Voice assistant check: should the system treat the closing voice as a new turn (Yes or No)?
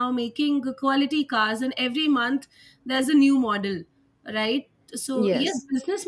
No